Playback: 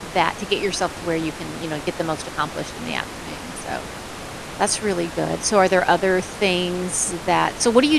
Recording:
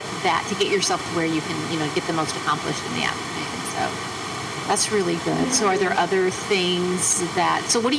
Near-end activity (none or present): present